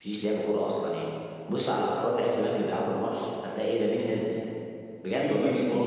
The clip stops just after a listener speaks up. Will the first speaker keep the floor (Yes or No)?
No